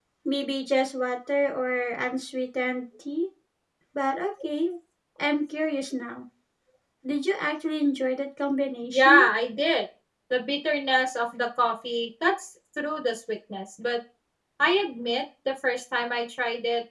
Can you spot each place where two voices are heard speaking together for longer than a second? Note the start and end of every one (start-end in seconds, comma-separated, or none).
none